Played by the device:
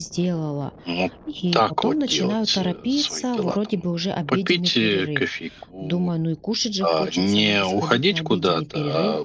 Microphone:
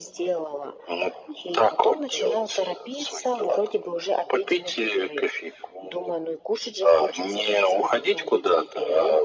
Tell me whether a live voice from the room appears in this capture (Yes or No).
No